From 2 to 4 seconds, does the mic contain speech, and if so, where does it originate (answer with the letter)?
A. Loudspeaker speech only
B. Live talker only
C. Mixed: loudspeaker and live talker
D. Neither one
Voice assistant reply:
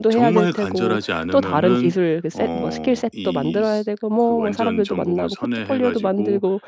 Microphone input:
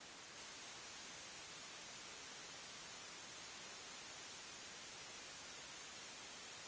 D